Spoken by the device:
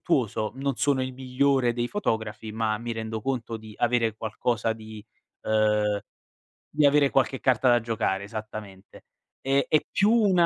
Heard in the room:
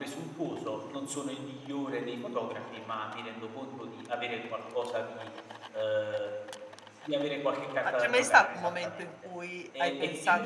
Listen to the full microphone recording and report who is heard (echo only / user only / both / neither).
both